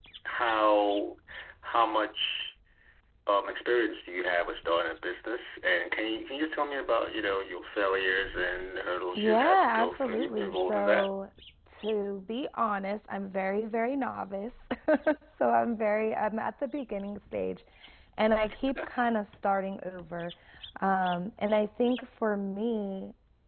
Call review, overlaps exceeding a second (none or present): present